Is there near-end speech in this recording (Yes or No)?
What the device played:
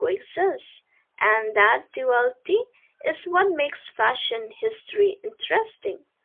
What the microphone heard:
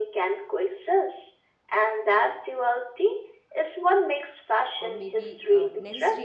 Yes